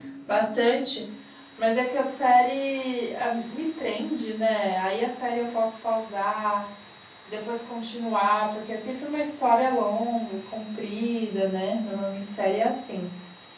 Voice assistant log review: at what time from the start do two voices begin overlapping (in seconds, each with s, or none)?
none